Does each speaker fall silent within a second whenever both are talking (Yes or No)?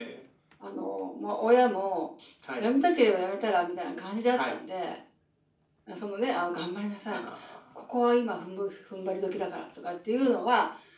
Yes